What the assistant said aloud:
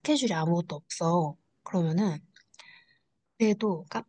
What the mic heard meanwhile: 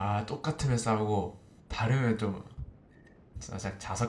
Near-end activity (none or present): present